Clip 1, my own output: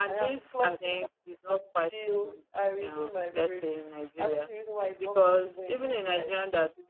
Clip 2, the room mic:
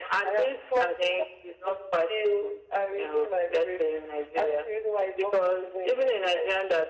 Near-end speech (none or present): none